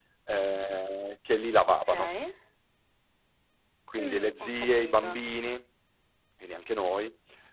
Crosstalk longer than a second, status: present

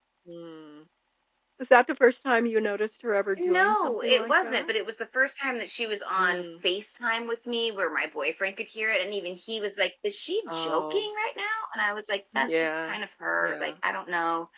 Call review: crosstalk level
present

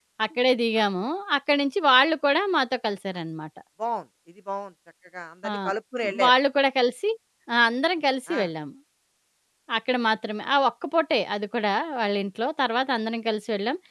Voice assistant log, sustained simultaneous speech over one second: none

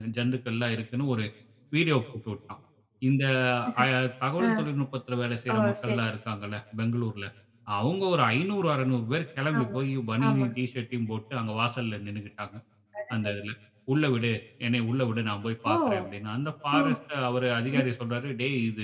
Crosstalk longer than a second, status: none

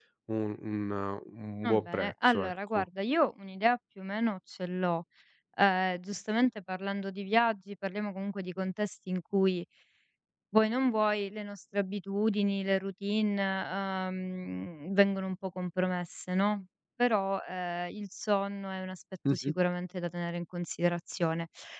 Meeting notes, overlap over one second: present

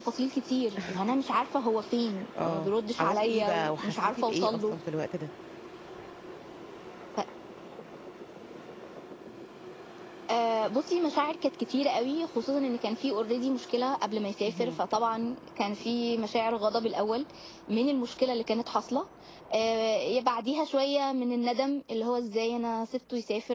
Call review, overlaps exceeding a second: present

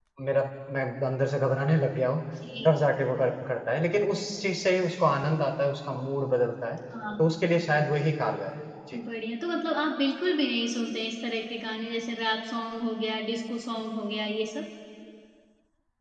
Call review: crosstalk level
none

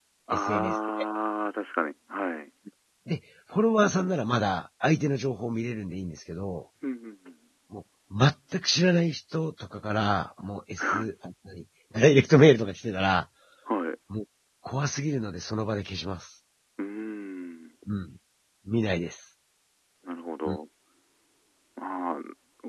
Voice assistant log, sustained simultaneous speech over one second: none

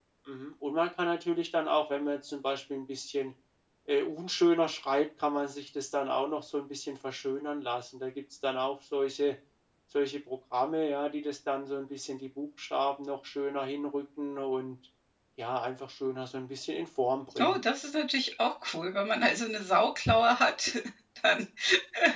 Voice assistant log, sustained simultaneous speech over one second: none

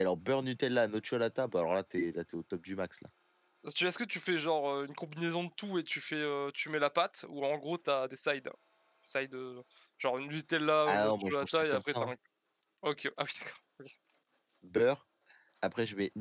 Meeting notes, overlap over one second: present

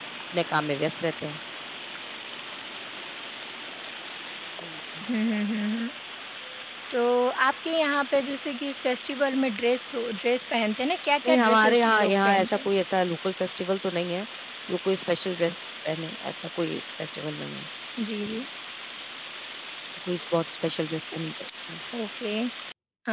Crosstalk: present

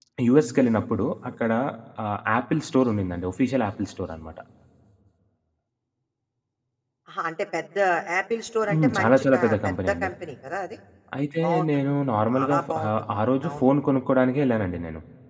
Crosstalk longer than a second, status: present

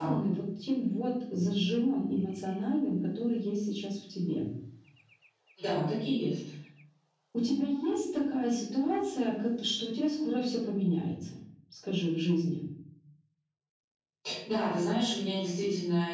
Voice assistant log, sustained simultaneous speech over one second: none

